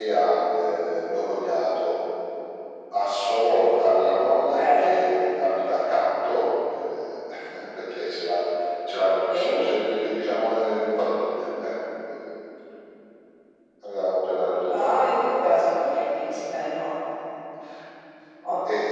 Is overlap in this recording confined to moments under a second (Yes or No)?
No